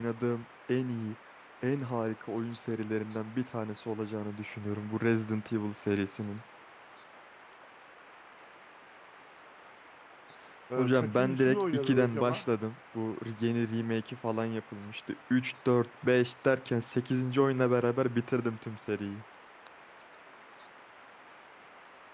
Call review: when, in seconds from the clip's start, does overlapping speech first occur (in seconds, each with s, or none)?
10.8 s